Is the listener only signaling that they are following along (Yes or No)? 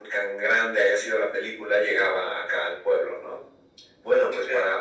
Yes